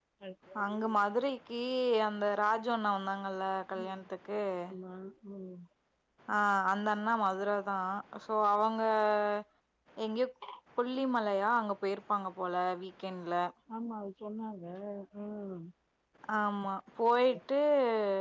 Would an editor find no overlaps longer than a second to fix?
Yes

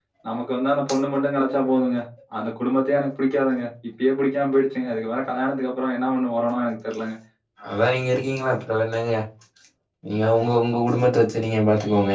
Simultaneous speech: No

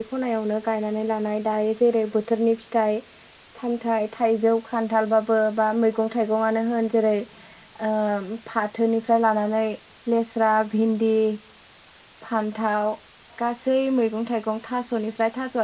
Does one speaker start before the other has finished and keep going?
No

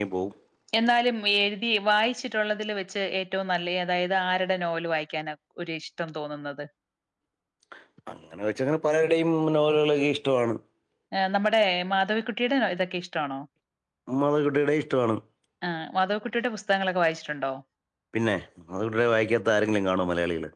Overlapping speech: No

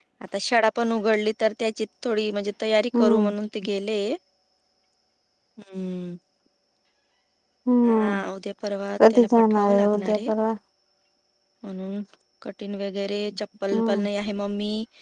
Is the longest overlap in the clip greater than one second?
Yes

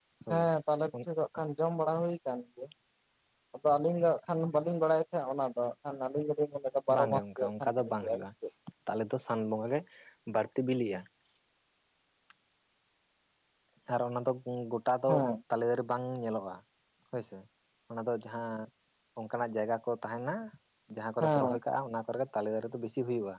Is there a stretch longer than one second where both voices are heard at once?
Yes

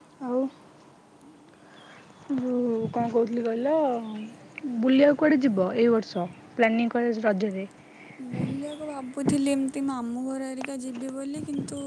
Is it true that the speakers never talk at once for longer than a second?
Yes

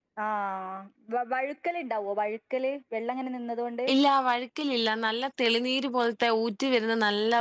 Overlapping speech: No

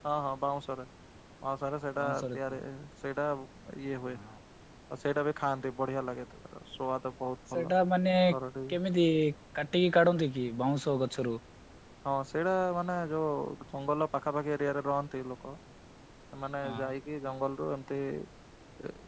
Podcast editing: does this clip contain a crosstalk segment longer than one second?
No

